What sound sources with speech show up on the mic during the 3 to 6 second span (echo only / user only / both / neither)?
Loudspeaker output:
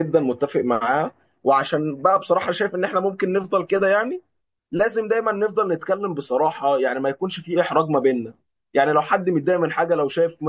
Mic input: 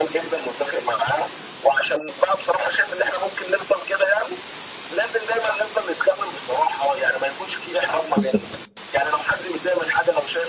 echo only